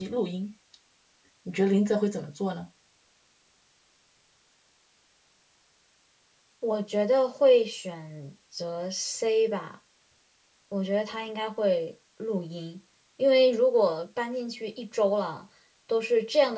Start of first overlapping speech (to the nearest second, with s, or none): none